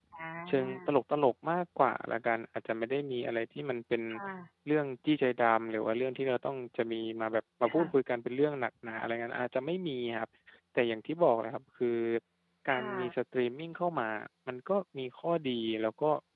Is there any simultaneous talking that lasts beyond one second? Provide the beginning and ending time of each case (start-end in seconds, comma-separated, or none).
none